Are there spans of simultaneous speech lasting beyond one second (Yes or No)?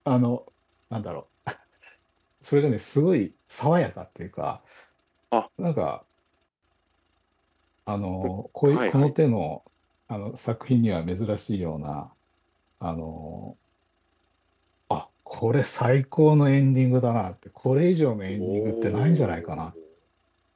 Yes